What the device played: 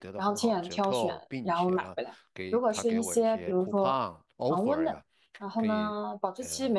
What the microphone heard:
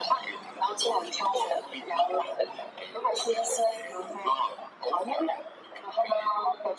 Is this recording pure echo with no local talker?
Yes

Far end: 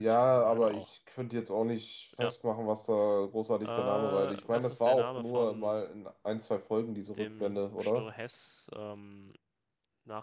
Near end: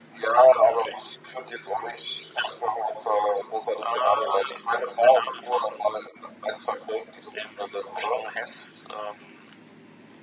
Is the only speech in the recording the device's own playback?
Yes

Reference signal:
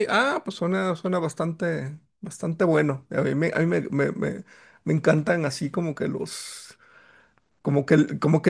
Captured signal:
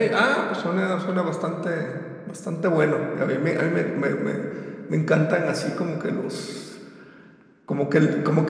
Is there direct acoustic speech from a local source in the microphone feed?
No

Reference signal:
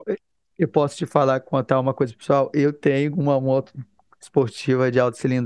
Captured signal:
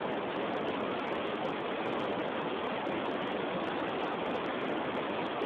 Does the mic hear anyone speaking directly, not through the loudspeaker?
No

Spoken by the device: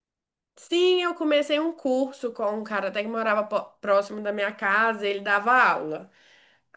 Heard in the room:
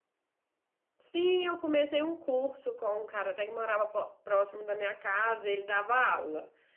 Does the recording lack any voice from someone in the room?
Yes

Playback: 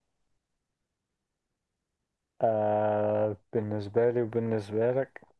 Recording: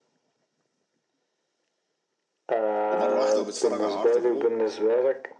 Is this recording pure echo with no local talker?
No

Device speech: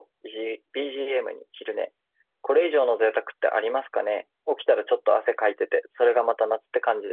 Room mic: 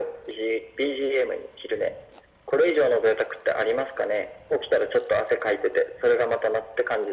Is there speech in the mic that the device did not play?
No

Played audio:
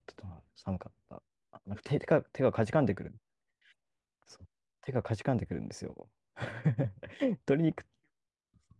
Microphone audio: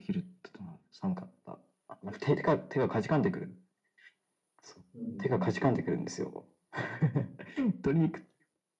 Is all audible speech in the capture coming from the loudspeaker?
No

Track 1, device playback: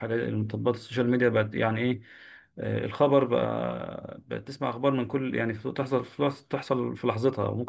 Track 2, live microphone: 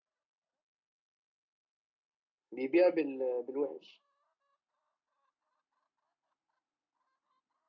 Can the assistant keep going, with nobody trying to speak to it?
No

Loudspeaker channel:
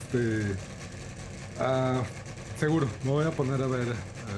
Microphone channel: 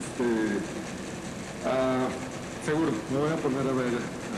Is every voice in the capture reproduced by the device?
Yes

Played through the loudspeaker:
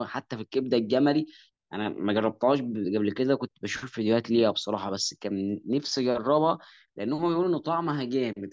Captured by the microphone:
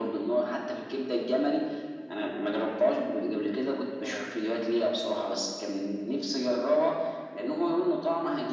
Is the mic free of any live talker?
No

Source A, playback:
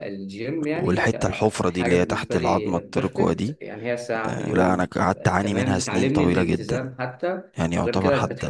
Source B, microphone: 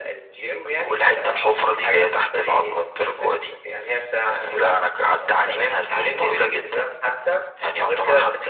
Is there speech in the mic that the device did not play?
No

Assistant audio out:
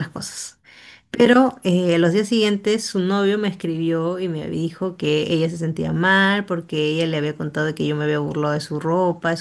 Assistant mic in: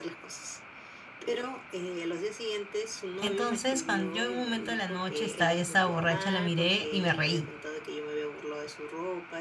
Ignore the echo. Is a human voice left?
Yes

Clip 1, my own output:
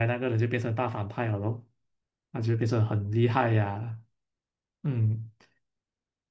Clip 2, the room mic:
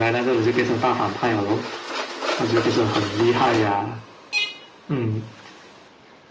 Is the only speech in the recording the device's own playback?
Yes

